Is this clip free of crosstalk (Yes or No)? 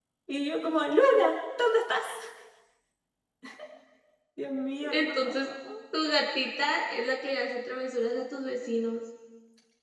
Yes